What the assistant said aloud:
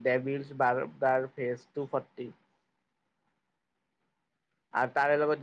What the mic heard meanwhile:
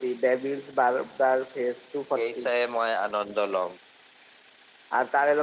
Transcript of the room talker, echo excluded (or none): সেই চাইহে মই আনন্দ ল'ম।